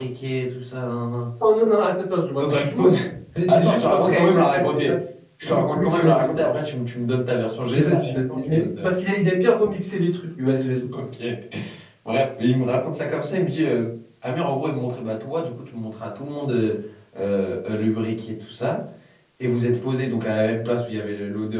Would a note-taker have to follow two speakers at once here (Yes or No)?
Yes